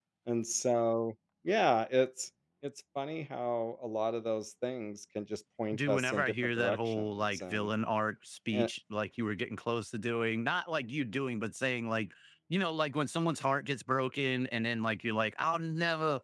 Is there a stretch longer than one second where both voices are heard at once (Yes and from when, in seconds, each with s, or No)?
Yes, from 5.7 s